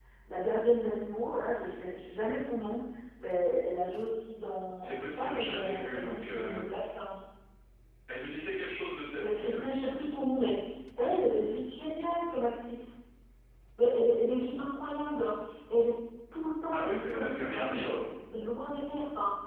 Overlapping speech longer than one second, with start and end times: 4.8-6.6, 16.7-18.0

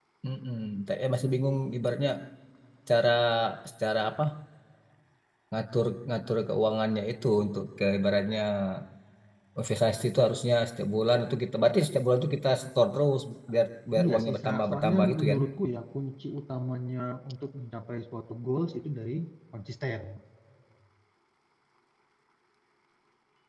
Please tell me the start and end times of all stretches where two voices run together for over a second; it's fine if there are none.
14.0-15.4

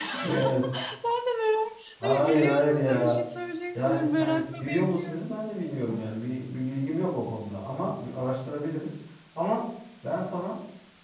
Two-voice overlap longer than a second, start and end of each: 2.0-3.2, 3.8-5.2

